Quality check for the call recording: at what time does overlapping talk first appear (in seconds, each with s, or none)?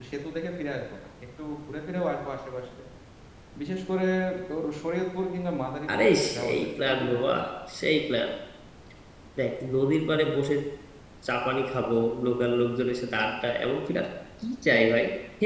5.9 s